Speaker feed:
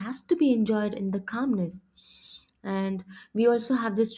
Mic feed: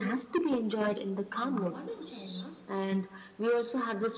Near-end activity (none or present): present